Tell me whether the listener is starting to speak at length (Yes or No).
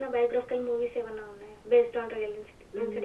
Yes